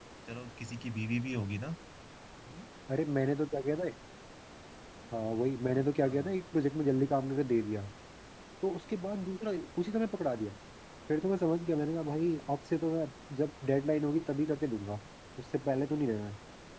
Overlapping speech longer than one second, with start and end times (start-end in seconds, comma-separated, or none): none